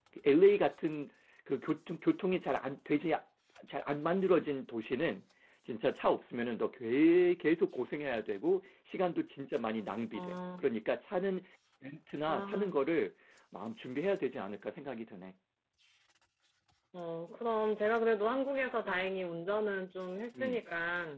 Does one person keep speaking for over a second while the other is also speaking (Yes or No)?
No